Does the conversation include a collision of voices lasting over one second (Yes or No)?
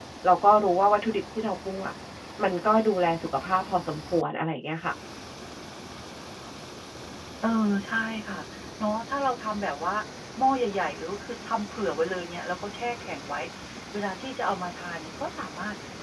No